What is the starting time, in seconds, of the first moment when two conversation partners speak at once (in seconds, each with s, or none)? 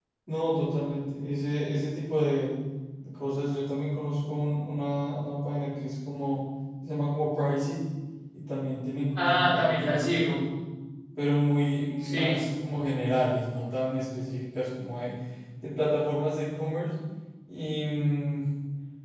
9.2 s